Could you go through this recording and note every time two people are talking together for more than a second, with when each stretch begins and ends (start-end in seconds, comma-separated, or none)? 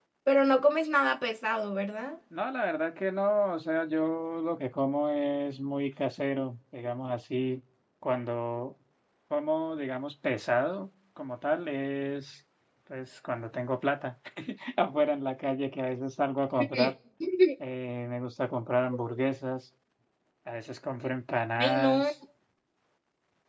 none